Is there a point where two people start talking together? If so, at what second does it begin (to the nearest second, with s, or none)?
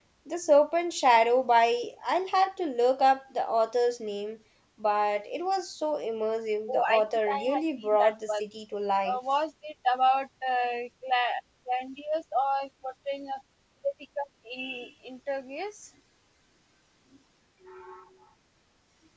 7 s